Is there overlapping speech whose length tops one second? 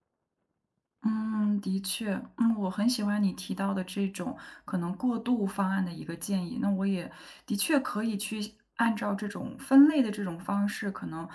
No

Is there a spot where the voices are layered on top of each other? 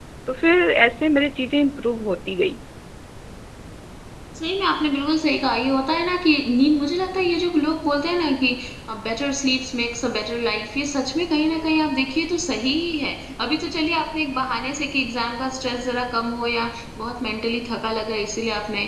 No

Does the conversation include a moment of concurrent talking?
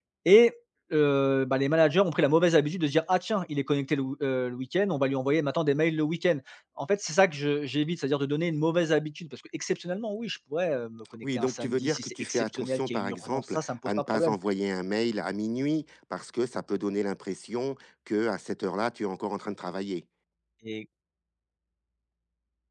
Yes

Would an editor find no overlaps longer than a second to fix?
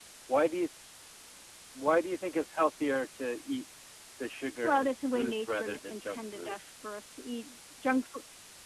No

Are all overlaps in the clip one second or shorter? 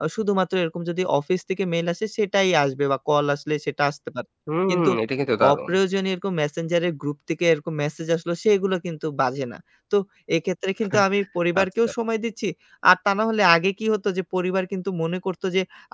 Yes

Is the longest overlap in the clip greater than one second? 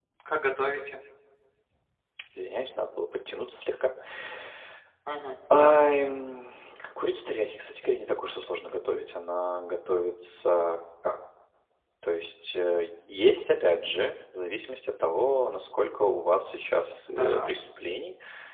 No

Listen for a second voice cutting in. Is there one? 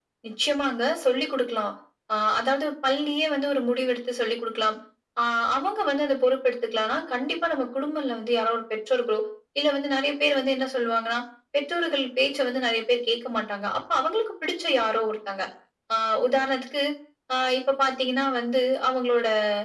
No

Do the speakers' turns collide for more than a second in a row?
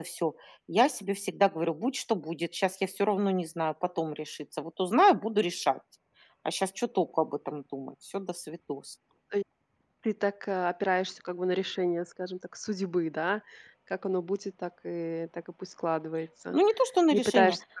No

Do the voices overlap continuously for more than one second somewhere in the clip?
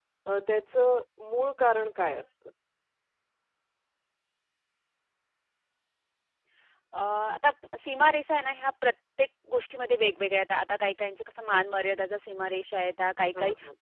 No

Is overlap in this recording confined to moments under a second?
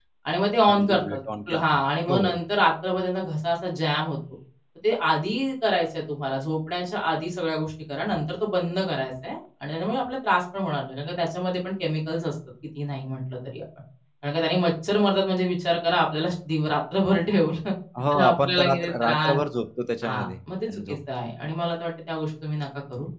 No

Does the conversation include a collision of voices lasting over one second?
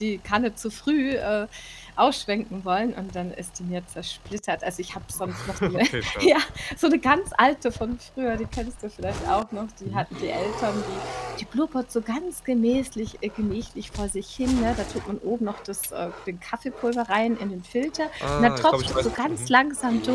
Yes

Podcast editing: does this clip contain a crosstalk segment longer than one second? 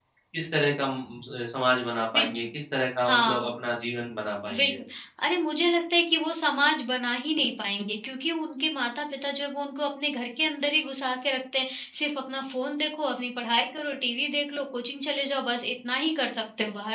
No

